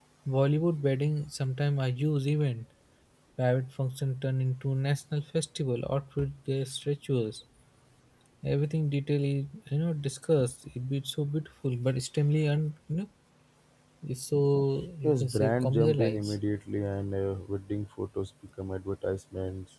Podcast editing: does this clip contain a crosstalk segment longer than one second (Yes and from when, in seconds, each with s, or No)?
Yes, from 15.0 s